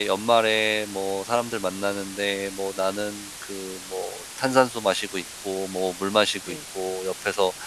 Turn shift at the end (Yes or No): No